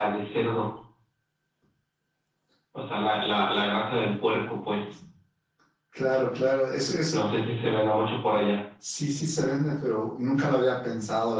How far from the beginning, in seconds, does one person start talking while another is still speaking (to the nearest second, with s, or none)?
none